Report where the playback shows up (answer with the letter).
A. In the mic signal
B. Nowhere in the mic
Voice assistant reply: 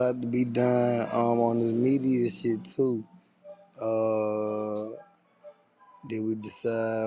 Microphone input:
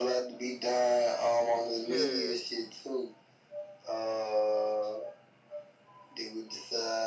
A